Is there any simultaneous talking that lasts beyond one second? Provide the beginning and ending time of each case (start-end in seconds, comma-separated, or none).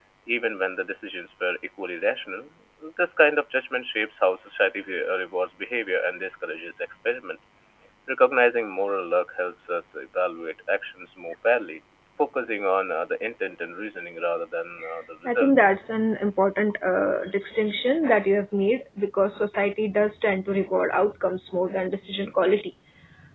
none